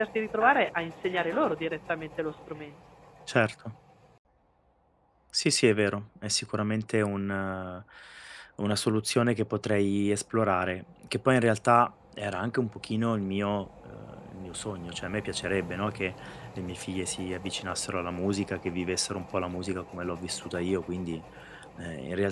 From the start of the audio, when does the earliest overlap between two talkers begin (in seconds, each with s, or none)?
none